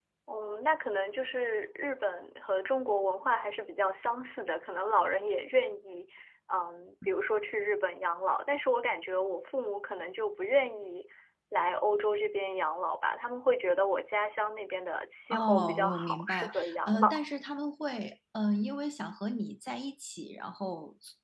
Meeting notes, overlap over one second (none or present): present